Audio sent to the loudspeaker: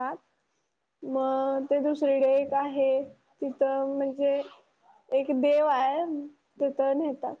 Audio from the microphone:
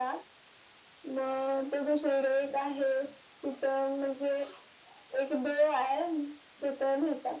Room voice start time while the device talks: none

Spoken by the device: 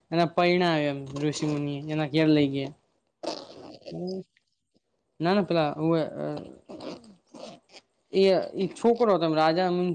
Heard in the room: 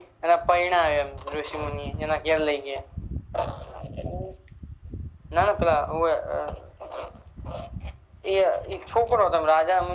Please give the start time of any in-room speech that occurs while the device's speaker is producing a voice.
none

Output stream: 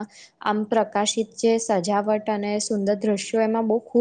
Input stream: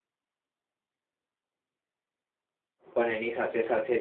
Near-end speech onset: 3 s

